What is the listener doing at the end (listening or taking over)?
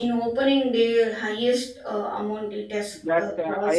taking over